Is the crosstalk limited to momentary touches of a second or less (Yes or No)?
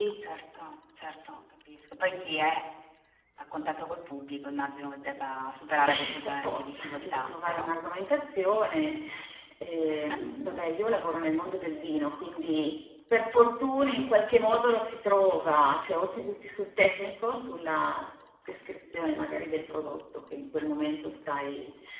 No